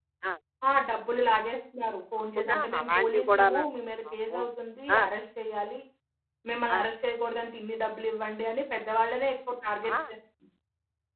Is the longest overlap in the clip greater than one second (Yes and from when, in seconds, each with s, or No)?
Yes, from 2.4 s